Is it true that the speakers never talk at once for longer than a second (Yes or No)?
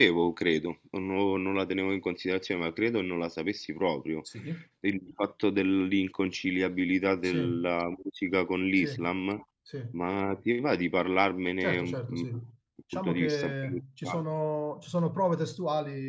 No